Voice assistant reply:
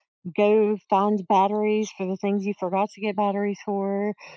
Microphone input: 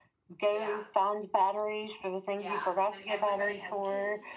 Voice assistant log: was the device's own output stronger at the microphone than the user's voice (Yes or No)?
Yes